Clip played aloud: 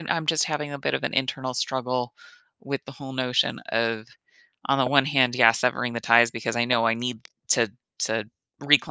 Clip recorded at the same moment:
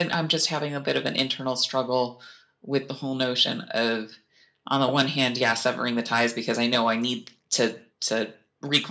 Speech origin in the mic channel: echo only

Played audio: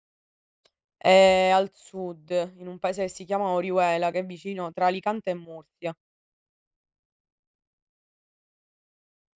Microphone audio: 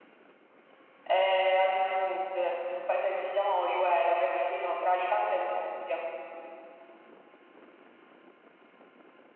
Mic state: echo only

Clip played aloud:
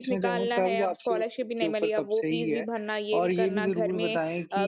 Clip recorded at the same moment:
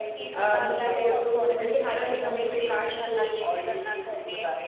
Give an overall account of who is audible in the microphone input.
both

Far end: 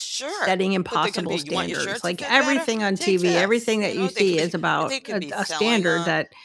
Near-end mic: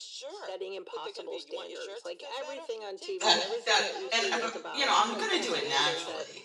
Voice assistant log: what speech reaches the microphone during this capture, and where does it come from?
both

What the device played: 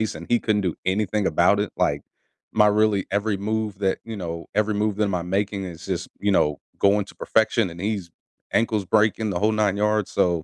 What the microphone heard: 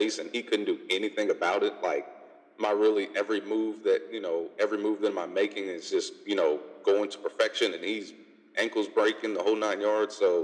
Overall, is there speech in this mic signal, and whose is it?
echo only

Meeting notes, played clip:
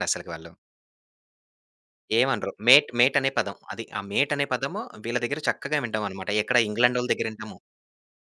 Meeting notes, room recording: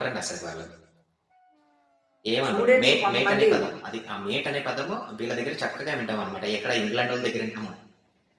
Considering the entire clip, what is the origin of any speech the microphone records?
both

